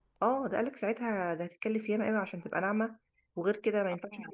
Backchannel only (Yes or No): Yes